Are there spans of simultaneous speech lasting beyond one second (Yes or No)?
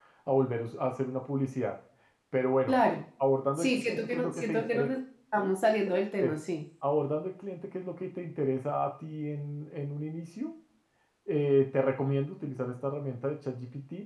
Yes